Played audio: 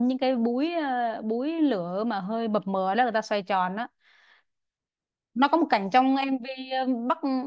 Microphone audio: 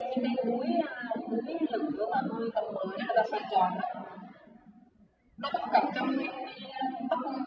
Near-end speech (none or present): none